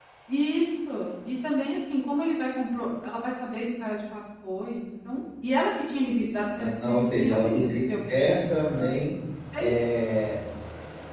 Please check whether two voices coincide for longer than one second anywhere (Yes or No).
Yes